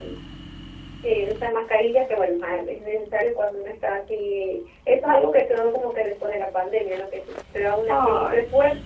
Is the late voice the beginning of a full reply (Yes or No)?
No